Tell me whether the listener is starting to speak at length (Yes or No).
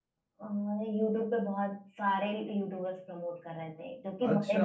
Yes